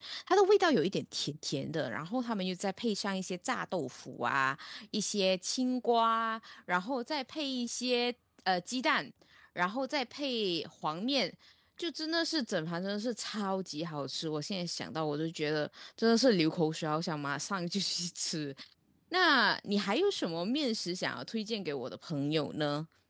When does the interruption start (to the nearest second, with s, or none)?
none